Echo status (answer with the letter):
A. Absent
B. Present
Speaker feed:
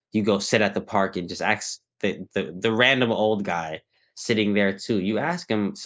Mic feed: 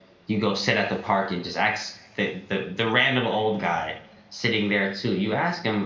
B